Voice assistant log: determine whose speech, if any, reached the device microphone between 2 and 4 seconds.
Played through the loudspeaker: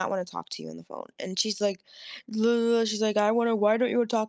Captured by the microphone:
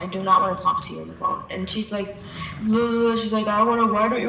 echo only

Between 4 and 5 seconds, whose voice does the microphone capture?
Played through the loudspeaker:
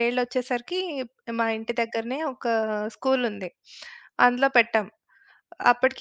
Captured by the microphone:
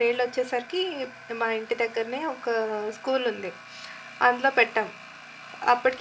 echo only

